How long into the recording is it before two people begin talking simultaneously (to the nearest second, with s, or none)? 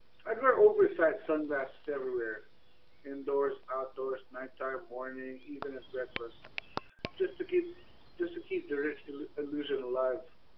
none